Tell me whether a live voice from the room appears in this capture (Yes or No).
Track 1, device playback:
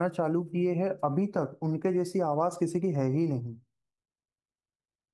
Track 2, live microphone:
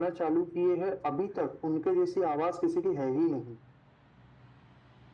No